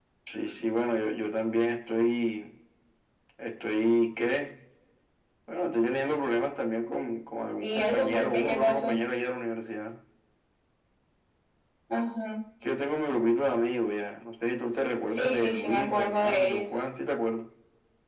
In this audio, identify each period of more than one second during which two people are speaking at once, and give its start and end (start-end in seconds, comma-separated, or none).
7.6-9.0, 15.1-16.6